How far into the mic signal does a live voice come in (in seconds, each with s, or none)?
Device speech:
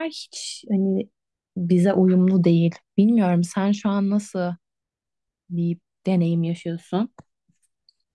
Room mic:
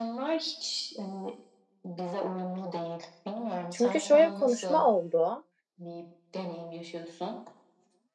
3.7 s